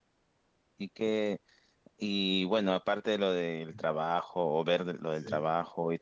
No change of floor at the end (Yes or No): Yes